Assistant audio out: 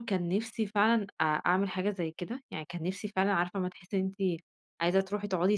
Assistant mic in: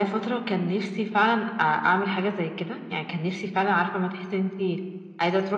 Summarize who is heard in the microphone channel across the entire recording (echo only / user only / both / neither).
echo only